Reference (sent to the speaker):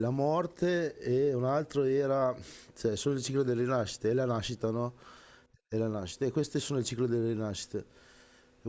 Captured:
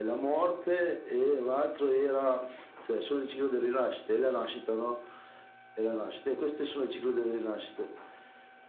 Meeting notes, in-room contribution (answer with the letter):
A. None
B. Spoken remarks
A